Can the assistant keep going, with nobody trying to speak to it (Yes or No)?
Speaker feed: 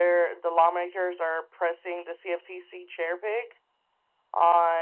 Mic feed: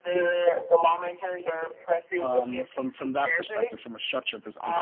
No